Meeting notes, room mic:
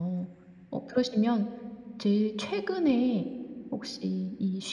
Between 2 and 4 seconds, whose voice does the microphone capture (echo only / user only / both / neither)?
user only